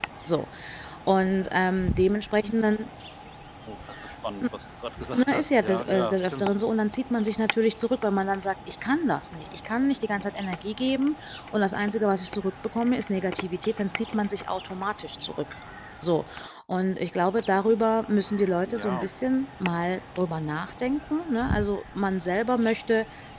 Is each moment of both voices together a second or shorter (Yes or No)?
No